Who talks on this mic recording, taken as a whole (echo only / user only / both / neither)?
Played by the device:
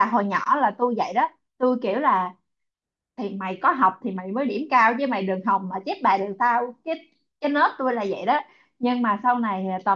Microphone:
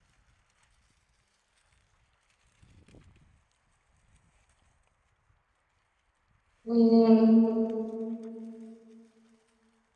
user only